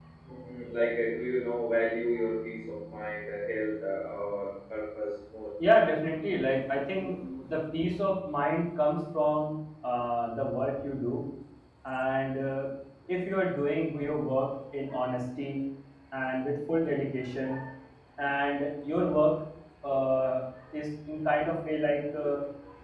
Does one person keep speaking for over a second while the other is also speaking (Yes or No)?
No